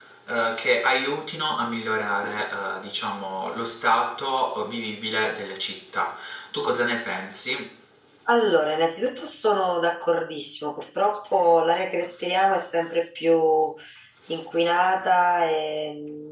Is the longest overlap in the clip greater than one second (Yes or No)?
No